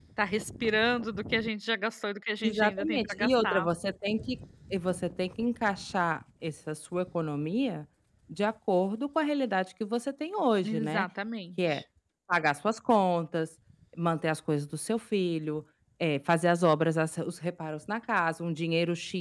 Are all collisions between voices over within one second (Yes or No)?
No